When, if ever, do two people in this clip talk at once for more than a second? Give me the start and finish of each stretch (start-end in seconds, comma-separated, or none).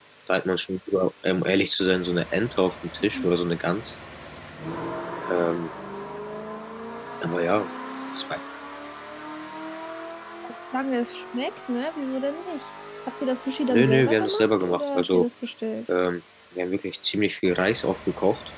13.7-15.3